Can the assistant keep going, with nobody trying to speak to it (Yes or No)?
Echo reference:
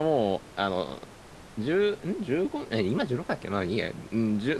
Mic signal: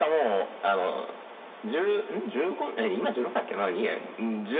Yes